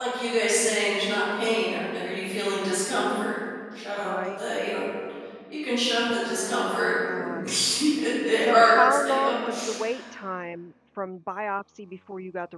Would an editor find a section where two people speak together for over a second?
Yes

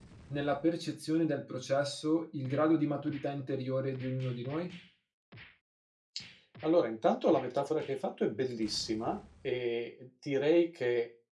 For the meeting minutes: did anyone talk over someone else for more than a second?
No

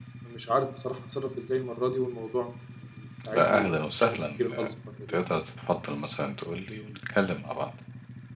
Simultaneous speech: Yes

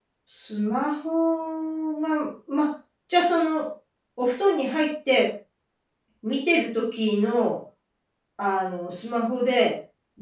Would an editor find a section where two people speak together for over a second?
No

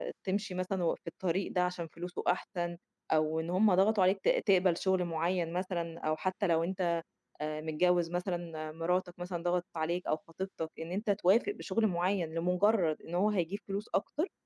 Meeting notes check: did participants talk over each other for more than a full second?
No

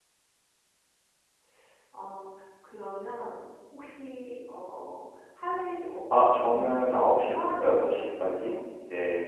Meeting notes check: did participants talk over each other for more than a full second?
Yes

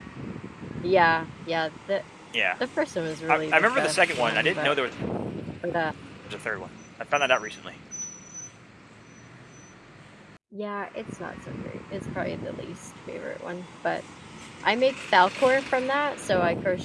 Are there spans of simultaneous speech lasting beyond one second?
Yes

